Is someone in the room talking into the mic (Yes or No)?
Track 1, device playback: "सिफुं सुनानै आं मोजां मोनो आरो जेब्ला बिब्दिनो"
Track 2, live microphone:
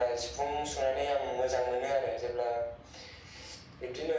No